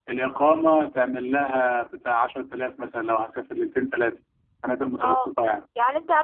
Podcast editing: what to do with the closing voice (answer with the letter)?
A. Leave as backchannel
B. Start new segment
B